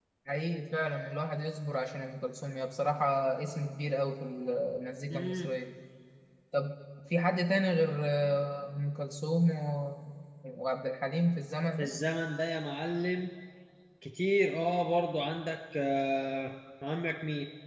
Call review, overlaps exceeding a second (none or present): none